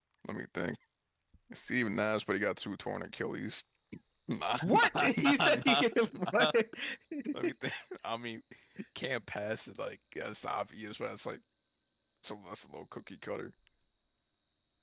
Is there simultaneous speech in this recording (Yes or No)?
Yes